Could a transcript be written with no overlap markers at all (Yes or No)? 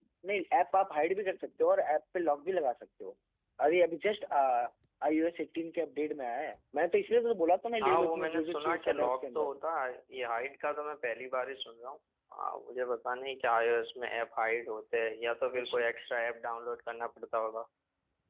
No